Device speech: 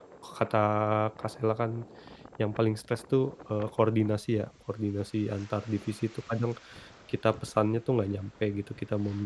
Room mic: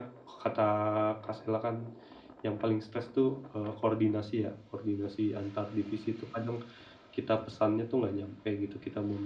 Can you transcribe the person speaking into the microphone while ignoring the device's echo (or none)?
none